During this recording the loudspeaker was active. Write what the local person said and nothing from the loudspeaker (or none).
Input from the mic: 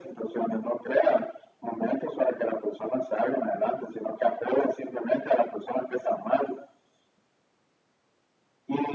none